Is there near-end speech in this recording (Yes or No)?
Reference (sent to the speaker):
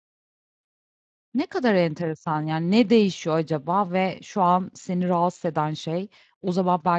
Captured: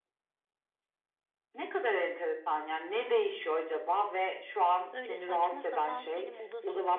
Yes